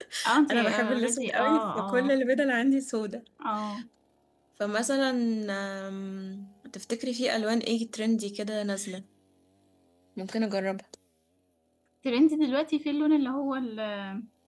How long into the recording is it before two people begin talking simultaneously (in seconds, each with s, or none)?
0.5 s